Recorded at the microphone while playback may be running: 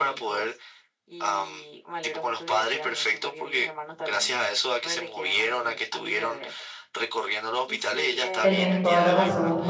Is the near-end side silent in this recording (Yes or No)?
No